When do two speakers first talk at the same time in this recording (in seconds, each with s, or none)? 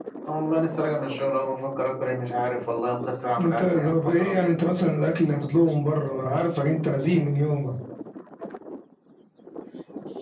3.4 s